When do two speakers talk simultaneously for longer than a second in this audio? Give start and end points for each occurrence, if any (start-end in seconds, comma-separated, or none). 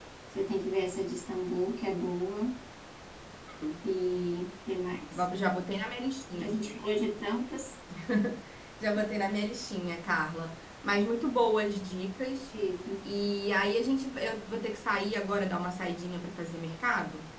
none